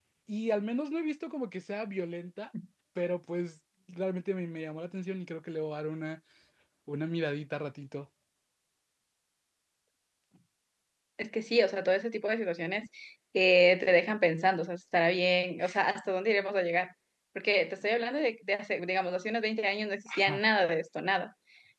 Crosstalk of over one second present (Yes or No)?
No